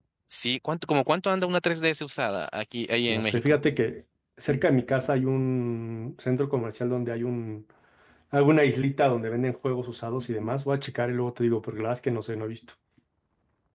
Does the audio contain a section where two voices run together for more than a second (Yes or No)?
No